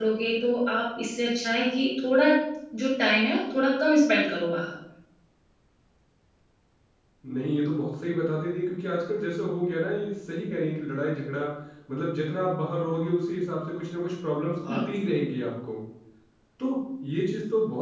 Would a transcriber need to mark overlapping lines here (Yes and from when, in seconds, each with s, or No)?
No